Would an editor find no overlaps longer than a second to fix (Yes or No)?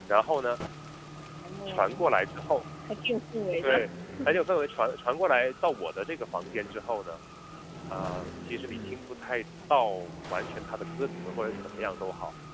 Yes